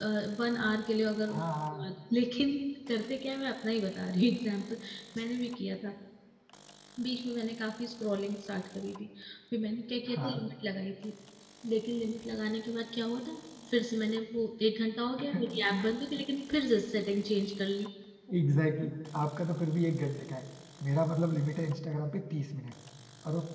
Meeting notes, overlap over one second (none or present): none